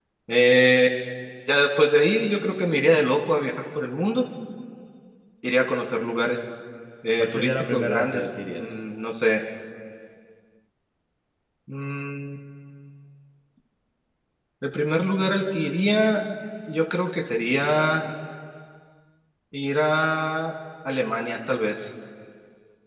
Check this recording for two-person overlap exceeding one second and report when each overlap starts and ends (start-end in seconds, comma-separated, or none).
7.2-8.7